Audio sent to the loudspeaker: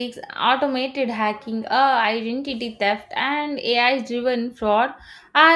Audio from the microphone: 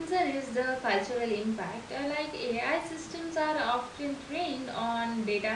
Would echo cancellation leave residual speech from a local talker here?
Yes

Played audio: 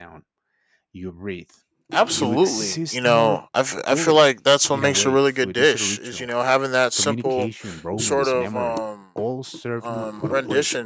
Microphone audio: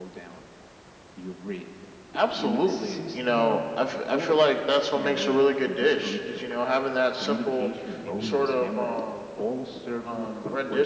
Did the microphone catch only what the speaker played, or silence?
No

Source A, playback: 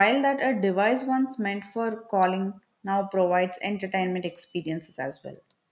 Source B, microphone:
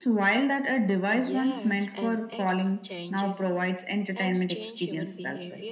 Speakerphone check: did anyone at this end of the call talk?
Yes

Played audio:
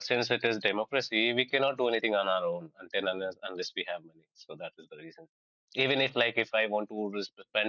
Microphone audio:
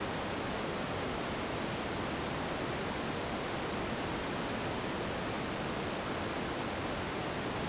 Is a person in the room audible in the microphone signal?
No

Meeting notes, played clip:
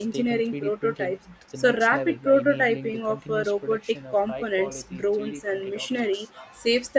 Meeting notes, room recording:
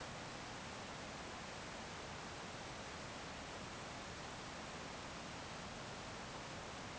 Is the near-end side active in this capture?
No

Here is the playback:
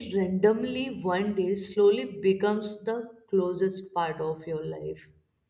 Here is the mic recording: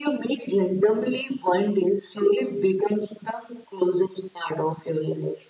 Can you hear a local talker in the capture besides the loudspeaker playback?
No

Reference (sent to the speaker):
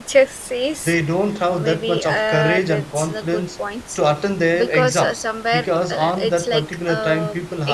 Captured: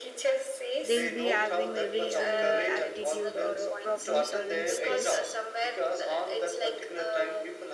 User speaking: Yes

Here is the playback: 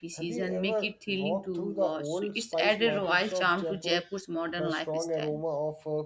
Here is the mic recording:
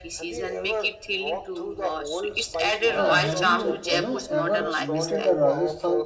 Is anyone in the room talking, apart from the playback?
Yes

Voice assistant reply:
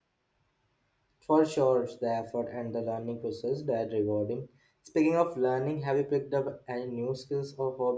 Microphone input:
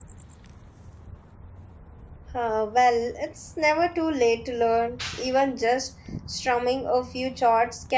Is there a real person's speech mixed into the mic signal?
Yes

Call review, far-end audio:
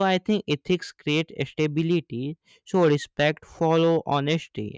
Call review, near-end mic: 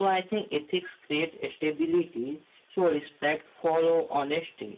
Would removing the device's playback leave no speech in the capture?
Yes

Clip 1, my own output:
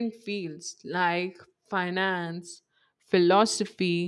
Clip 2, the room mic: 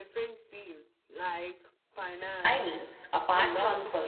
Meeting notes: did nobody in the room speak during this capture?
No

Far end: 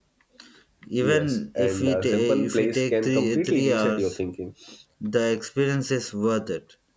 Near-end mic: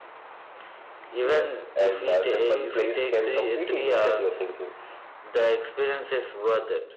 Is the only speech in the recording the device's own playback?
Yes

